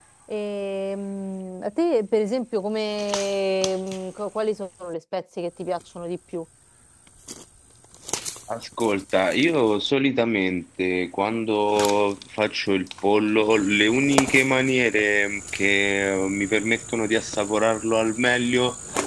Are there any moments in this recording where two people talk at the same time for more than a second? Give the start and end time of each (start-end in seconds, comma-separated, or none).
none